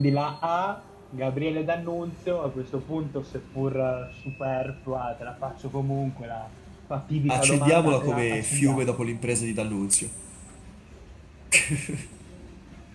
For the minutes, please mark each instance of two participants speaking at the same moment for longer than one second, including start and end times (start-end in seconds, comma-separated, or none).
7.3-8.9